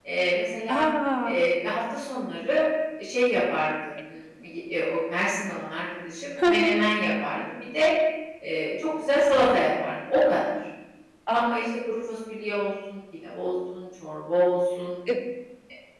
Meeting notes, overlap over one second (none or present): none